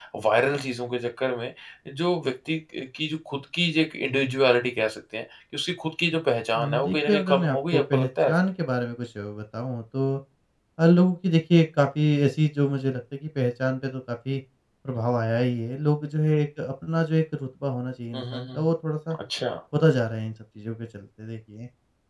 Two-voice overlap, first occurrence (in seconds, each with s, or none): 6.6 s